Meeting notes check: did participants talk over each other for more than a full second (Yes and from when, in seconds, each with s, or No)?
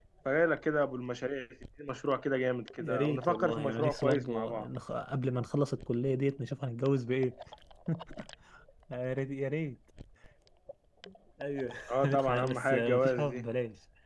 Yes, from 2.8 s